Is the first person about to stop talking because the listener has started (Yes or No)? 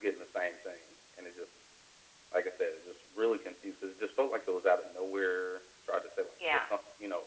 No